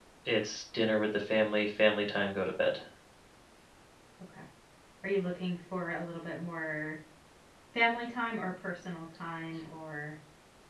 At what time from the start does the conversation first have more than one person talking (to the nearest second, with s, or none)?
none